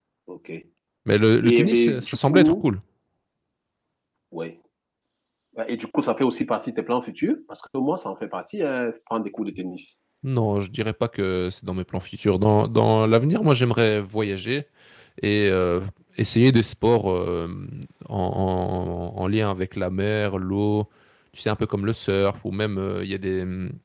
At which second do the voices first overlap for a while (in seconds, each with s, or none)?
1.4 s